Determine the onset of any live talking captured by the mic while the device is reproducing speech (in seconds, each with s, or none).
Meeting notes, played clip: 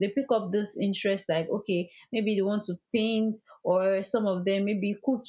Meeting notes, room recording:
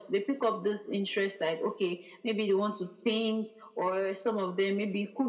none